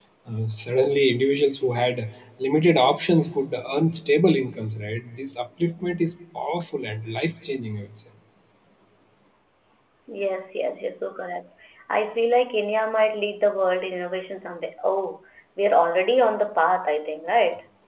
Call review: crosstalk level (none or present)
none